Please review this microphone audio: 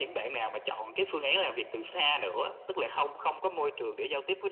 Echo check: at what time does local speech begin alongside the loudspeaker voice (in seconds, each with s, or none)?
none